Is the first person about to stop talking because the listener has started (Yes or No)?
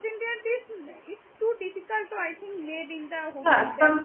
Yes